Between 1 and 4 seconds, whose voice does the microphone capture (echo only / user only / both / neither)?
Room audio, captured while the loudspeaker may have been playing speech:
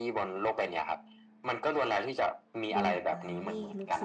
both